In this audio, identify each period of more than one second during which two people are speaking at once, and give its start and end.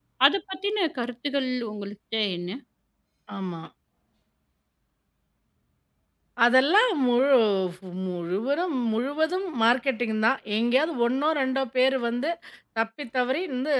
none

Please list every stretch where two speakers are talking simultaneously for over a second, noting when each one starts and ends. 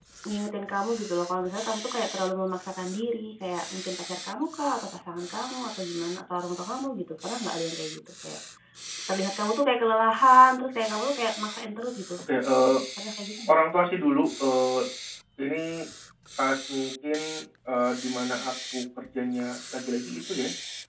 none

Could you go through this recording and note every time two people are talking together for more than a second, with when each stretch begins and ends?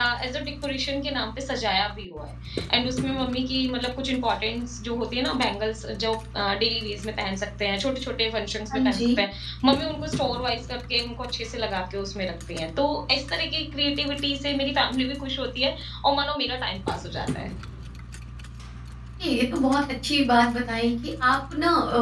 none

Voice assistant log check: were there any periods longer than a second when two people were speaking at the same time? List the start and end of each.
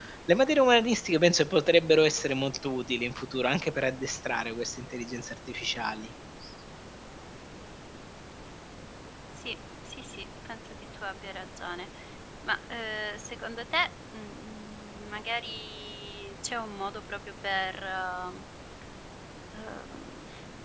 none

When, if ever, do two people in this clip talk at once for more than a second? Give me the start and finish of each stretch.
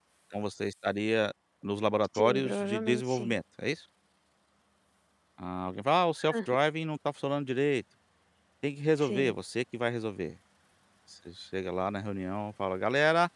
2.2-3.4

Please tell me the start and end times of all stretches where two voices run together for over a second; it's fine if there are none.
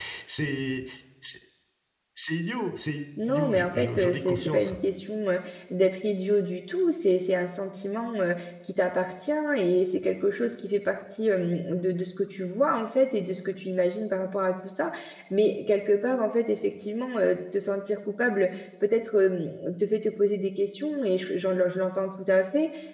3.3-4.7

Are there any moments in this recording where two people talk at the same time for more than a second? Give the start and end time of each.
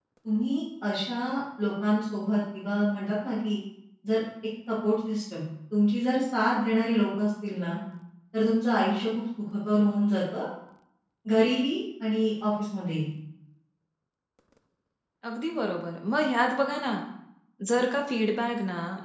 none

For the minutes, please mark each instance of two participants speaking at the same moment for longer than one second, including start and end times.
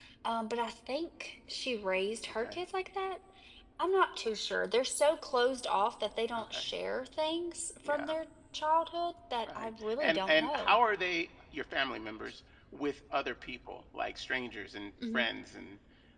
9.5-10.8

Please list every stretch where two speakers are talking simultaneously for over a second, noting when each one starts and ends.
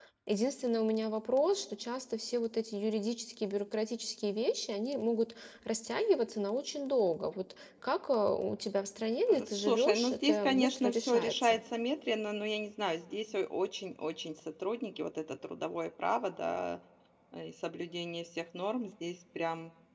9.3-11.6

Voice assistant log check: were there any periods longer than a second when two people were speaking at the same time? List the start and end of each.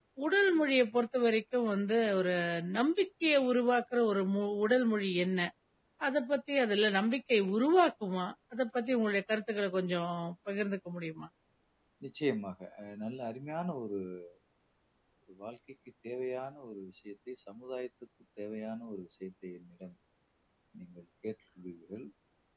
none

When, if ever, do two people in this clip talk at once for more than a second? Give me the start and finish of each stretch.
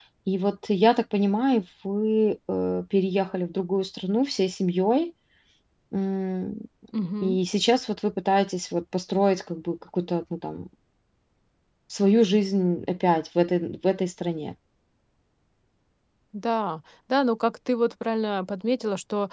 none

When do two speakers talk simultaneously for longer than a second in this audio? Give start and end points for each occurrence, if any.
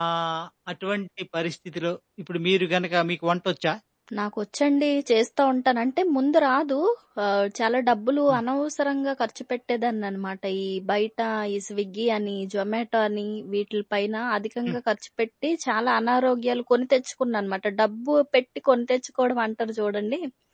none

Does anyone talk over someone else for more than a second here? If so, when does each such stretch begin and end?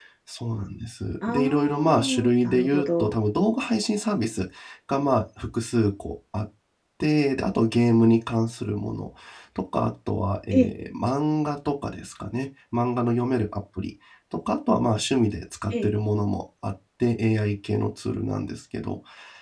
1.3-3.2

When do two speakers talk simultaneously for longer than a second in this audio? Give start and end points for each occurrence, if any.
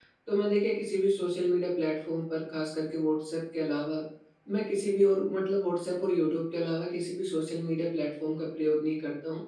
none

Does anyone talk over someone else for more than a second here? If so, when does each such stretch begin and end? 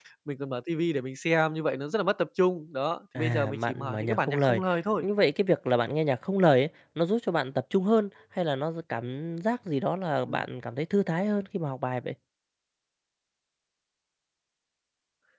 3.2-4.6

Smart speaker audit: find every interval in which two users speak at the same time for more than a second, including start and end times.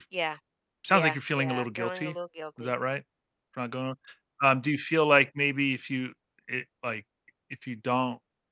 0.9-2.2

